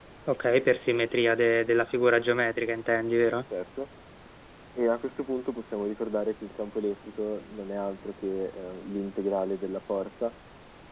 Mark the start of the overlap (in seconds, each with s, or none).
none